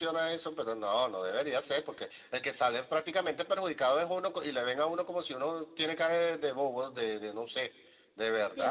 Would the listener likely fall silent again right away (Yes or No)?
No